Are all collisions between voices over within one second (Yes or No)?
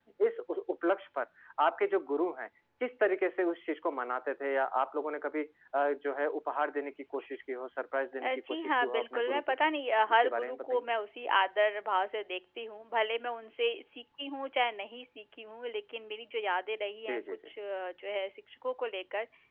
No